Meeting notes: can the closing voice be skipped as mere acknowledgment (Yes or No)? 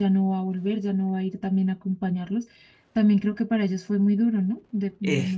No